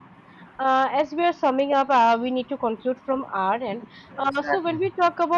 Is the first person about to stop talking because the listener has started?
No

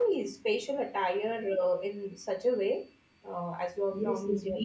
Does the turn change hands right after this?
Yes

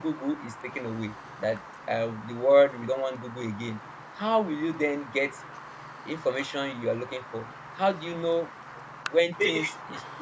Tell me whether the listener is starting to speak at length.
No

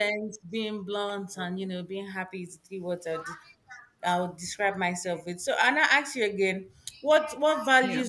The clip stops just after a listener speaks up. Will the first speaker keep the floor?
Yes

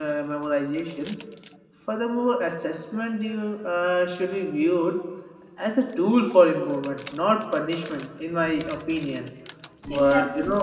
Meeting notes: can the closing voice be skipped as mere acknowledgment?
Yes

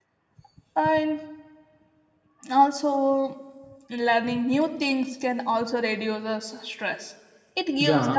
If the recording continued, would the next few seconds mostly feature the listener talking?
Yes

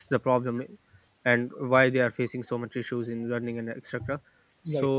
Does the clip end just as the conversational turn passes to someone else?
No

